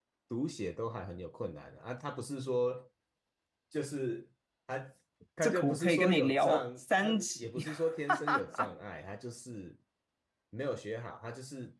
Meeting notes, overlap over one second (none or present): present